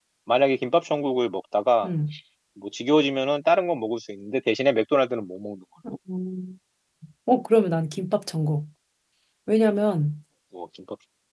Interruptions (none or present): none